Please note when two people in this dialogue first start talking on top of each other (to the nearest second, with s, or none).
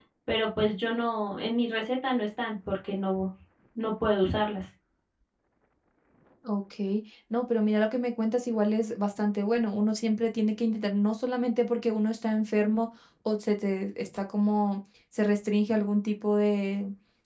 none